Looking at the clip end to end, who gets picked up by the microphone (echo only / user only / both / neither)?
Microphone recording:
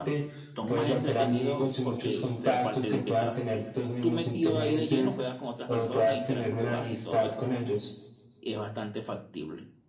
both